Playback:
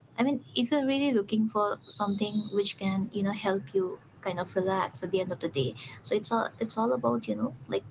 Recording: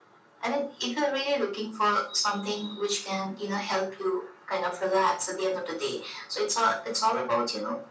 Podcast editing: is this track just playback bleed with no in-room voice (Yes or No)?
Yes